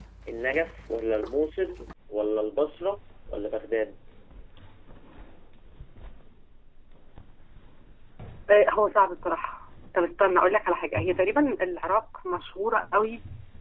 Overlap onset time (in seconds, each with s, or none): none